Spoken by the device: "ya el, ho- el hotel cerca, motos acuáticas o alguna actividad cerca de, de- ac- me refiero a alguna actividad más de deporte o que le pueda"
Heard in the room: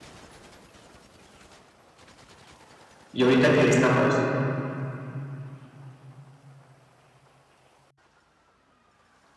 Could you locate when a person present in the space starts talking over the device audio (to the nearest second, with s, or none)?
3 s